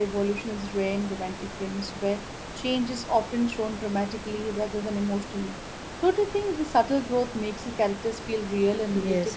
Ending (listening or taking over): taking over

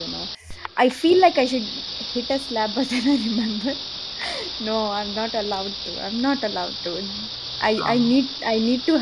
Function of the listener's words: listening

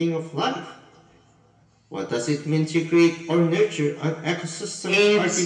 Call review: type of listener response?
taking over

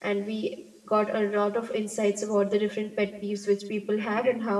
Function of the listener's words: listening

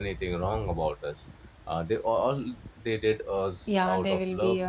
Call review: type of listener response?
taking over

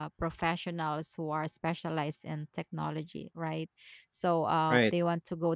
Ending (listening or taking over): listening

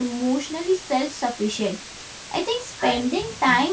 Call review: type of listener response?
listening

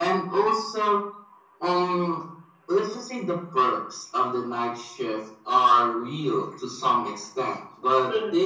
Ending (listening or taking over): listening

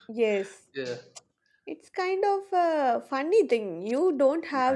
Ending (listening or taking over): listening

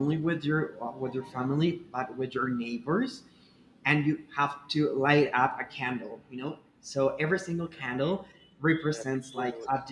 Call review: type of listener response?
listening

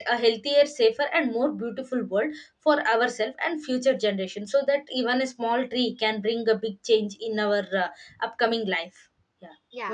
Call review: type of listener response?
taking over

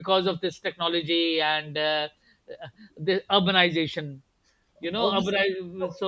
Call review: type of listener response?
listening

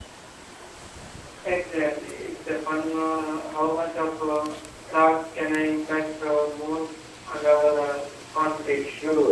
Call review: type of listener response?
taking over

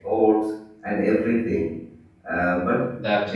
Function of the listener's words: listening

